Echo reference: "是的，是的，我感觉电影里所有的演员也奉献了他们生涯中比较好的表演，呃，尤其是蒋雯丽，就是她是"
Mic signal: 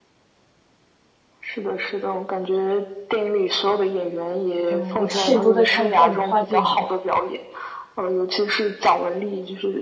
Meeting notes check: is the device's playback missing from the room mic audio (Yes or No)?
No